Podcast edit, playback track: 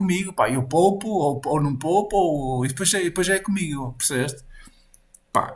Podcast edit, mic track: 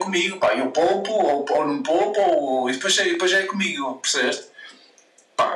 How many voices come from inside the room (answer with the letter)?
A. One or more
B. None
B